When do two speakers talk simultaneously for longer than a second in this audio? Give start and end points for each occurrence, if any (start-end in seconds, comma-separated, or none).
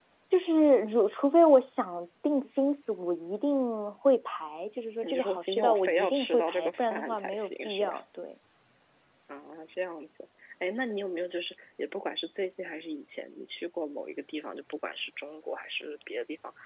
5.0-8.0